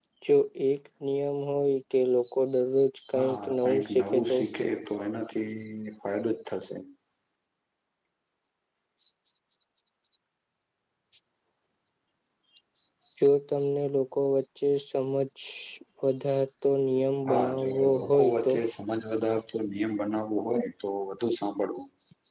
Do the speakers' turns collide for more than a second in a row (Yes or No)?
Yes